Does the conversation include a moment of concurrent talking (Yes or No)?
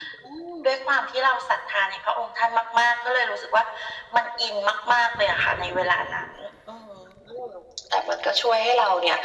No